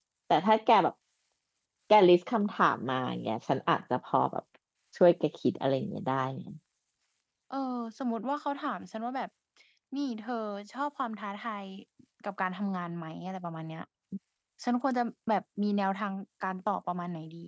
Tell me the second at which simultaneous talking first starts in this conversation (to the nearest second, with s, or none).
none